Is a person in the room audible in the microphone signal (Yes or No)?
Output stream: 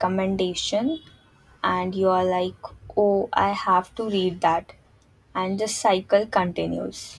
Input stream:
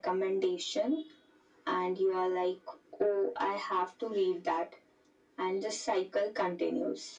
No